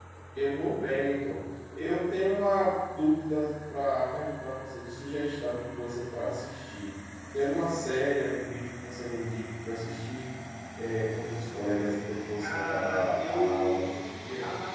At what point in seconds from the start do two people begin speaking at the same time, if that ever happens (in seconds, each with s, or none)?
12.4 s